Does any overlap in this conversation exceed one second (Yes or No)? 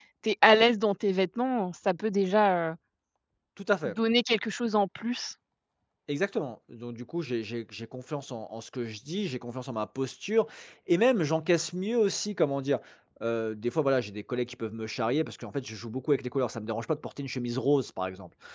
No